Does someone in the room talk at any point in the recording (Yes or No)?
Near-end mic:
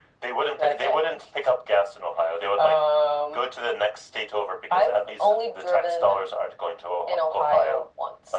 No